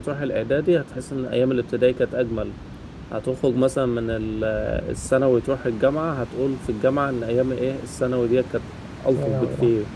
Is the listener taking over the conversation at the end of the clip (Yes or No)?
No